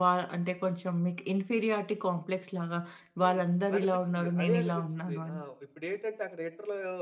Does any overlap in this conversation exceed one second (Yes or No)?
Yes